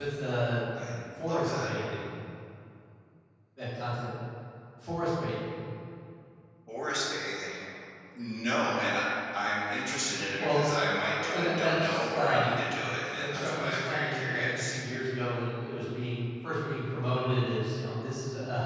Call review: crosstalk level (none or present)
present